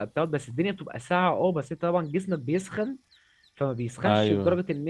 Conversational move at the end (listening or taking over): listening